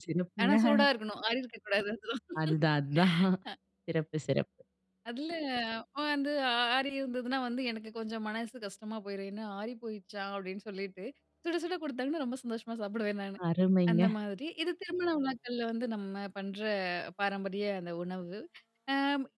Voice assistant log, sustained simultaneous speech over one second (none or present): none